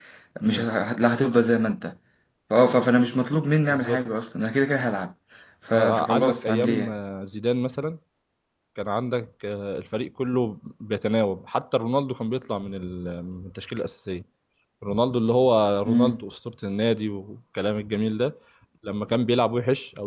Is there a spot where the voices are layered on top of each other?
Yes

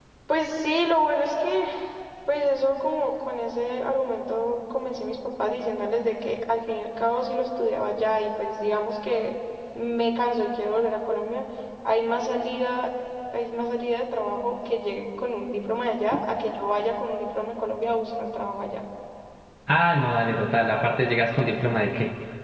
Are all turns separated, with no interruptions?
Yes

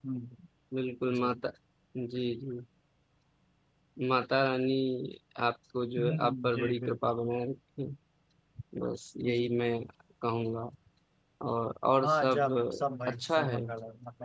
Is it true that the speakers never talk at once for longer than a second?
No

